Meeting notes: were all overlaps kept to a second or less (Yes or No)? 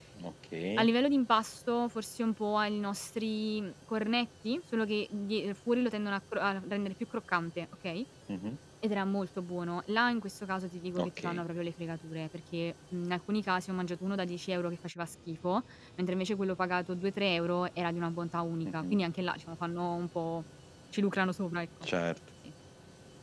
Yes